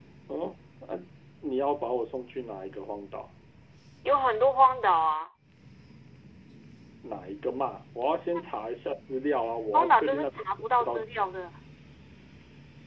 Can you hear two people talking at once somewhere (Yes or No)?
Yes